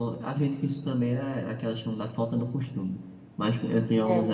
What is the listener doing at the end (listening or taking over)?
listening